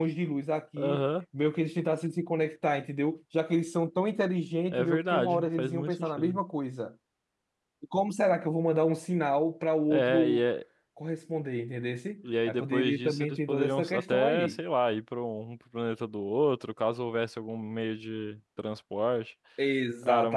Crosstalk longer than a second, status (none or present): present